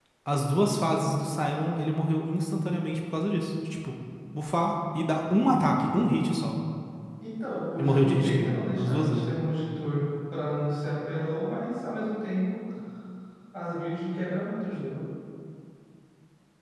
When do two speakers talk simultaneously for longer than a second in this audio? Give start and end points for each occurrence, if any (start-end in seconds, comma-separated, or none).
7.8-9.3